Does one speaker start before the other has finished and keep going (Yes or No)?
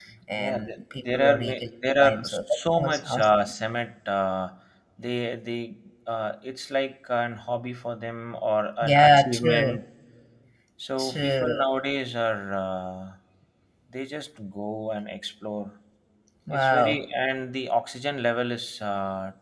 Yes